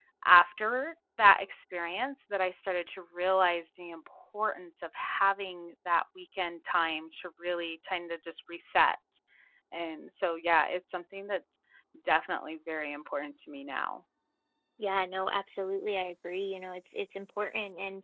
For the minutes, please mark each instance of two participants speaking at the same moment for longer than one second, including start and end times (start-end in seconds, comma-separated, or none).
none